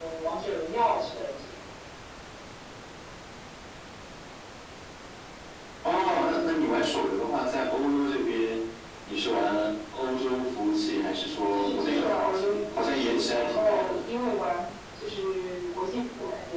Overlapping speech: Yes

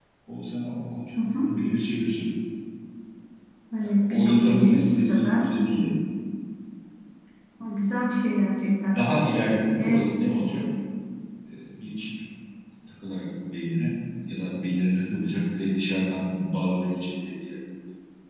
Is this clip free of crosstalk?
No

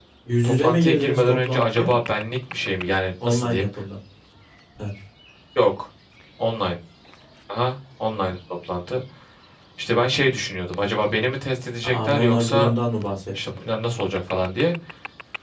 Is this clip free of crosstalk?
No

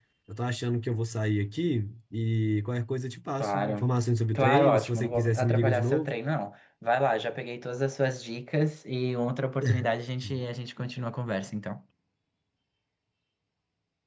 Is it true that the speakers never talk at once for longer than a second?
No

